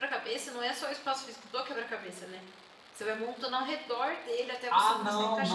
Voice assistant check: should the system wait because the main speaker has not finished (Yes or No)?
No